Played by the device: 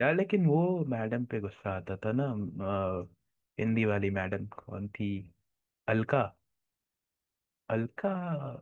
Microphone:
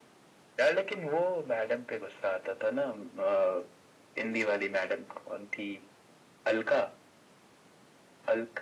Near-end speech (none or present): none